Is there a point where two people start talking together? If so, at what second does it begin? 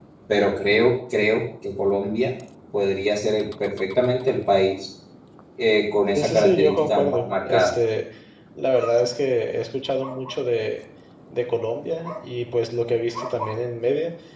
6.1 s

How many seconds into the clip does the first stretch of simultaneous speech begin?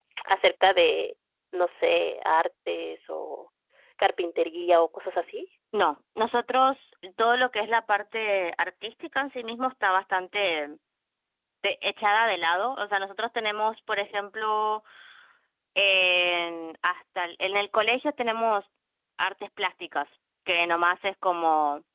none

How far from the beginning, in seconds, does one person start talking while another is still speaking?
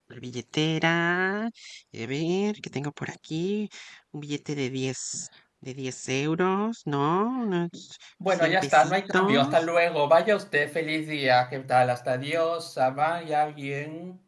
8.3 s

